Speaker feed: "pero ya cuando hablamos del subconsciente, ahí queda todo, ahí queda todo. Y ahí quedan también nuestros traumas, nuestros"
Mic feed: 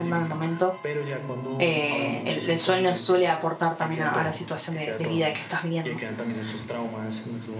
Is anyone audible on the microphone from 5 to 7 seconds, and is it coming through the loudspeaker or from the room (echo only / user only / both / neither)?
both